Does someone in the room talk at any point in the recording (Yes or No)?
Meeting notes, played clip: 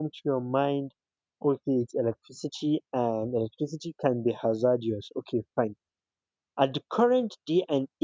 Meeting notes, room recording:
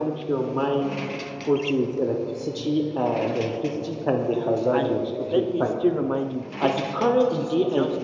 Yes